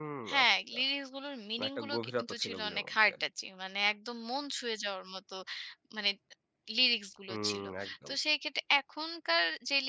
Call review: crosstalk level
present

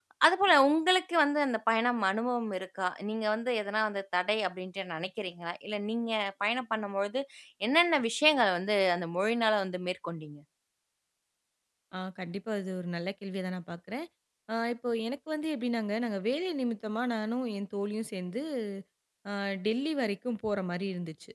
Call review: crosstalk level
none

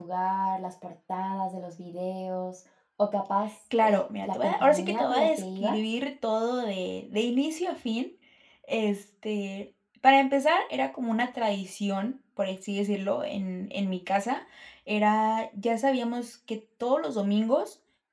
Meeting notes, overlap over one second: present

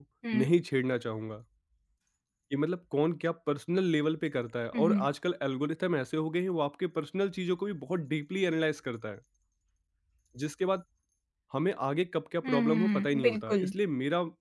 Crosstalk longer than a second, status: present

